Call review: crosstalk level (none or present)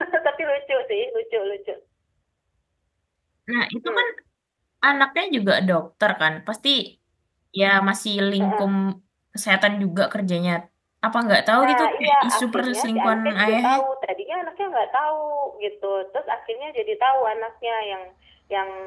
present